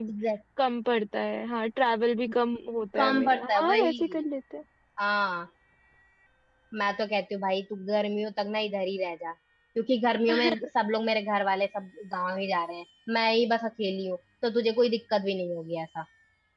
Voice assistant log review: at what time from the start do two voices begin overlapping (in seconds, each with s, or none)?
3.0 s